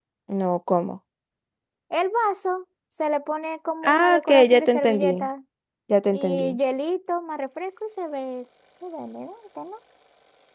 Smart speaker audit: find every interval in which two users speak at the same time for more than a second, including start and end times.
3.8-5.3

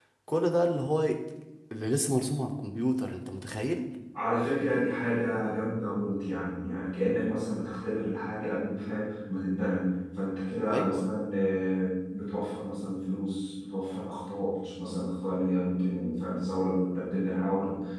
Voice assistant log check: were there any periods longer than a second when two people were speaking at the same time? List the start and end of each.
none

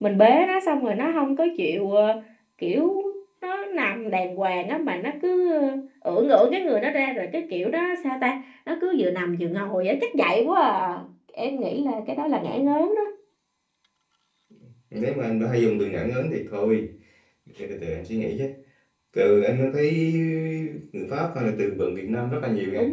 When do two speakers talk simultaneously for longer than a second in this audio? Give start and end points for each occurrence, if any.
none

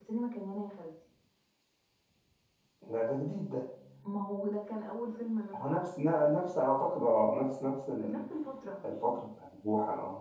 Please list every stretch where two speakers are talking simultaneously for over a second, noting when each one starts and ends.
none

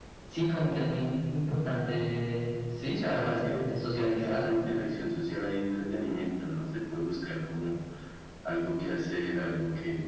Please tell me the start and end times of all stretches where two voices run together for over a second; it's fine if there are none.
2.9-4.6

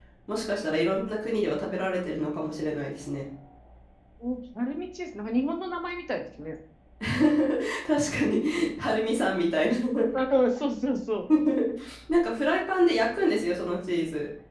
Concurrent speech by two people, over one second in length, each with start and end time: none

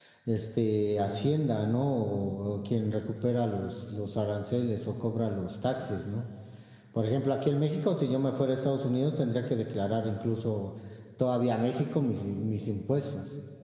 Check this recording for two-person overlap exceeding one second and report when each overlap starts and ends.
none

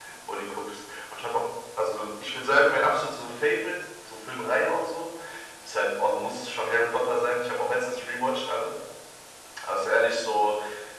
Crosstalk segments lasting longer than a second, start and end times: none

